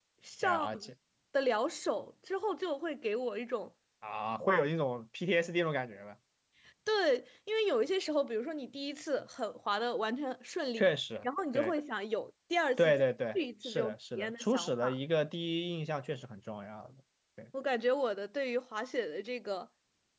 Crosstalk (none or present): present